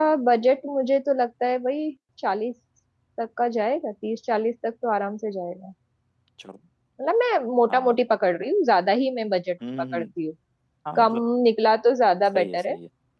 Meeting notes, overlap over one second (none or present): none